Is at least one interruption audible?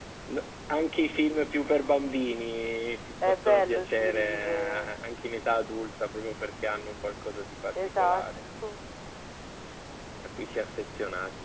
Yes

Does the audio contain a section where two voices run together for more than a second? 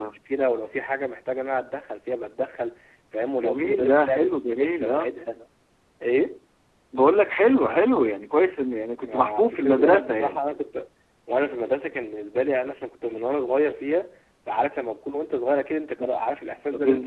Yes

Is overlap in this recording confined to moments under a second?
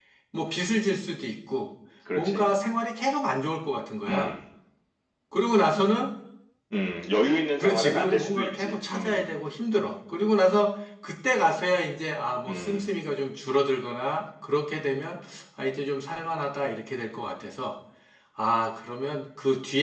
No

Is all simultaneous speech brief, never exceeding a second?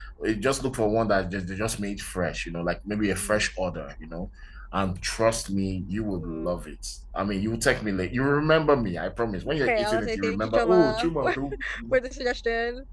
No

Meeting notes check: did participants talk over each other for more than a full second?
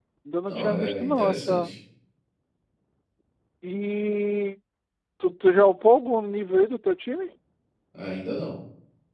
Yes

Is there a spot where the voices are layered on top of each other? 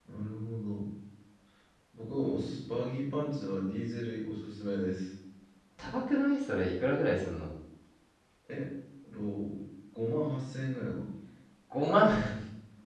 No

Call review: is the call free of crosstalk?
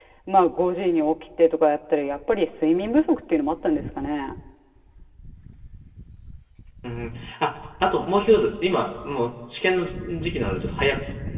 Yes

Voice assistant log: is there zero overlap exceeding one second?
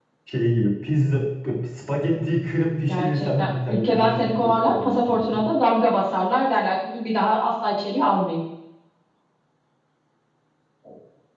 No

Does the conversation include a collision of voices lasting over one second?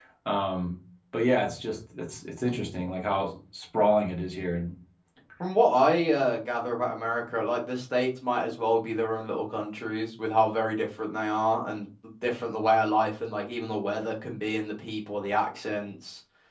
No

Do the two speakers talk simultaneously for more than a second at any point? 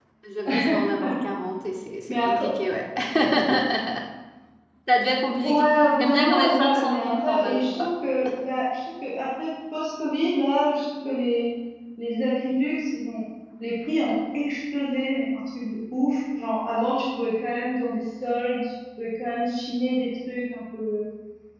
Yes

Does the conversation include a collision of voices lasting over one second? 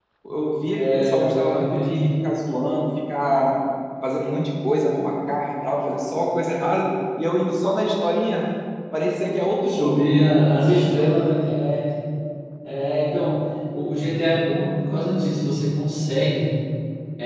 Yes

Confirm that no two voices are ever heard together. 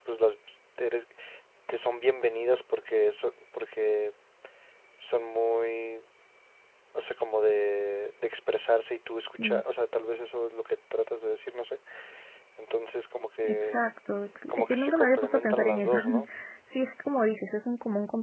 No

